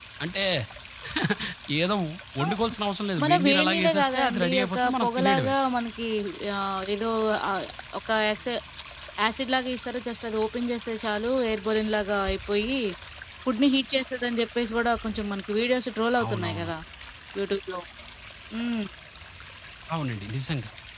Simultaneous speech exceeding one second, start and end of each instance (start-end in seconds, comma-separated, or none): 3.2-5.5